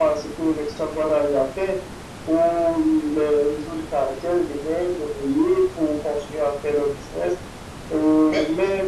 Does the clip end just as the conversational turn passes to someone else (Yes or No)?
No